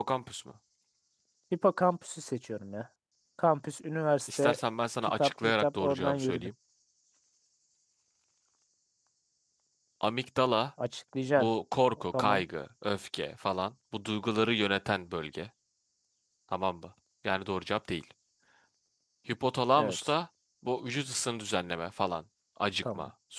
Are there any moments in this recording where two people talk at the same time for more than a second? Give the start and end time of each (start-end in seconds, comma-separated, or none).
5.0-6.5